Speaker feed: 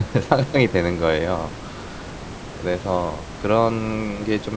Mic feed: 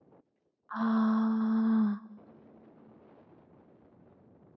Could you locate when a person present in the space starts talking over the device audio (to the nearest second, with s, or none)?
1 s